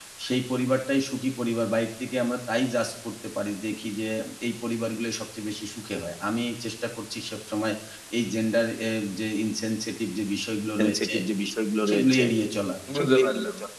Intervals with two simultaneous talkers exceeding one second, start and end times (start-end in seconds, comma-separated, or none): none